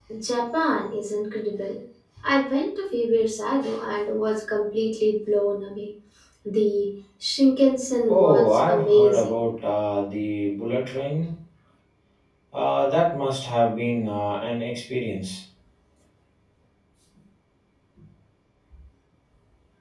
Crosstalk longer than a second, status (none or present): present